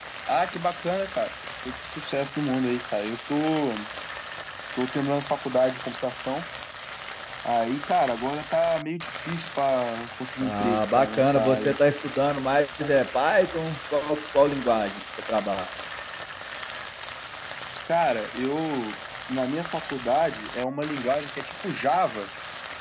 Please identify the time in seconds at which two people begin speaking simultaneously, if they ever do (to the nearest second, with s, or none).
10 s